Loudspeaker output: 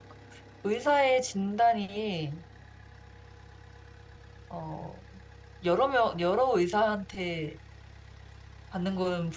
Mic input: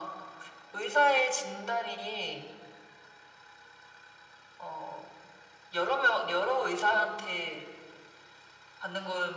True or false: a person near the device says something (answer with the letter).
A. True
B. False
B